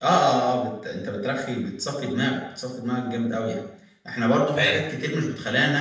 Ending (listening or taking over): listening